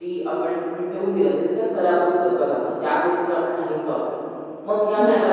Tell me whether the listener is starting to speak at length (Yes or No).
No